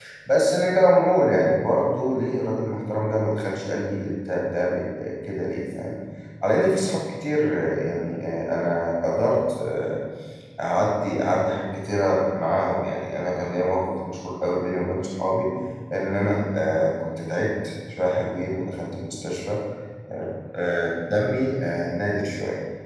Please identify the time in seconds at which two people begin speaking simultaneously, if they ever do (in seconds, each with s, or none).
none